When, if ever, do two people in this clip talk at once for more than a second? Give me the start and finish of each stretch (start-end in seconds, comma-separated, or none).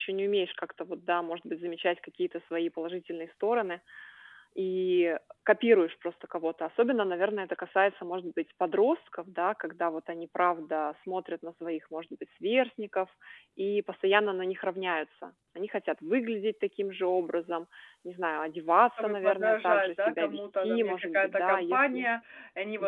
19.0-22.1